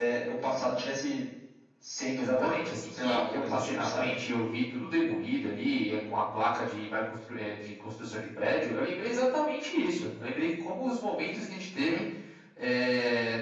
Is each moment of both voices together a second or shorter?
No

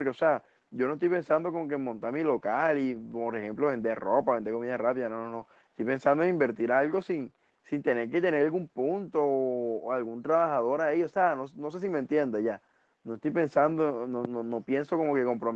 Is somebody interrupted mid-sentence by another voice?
No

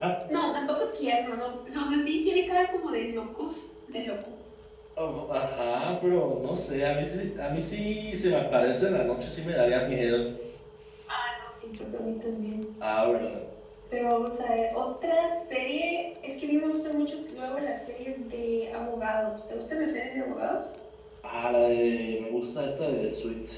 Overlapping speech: No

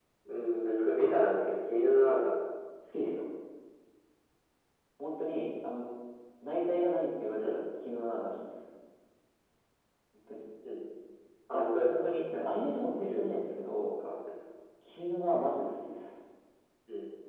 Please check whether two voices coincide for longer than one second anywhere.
Yes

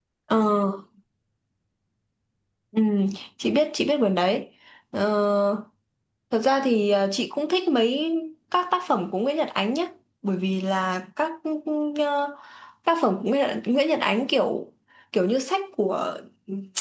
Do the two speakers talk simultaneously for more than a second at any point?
No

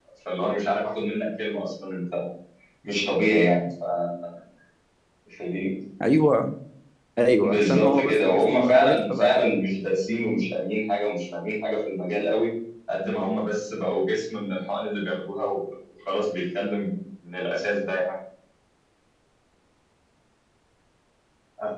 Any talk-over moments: Yes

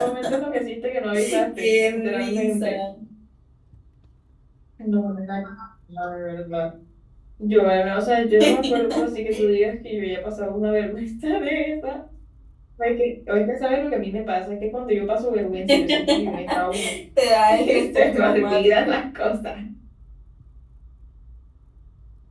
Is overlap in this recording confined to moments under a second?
No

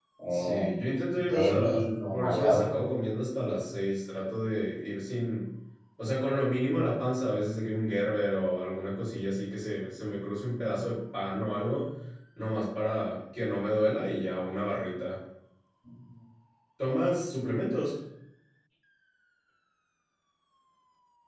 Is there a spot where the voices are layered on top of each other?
Yes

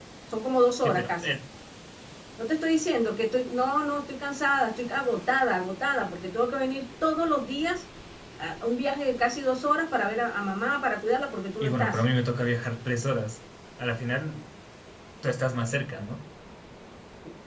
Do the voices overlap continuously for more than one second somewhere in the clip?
No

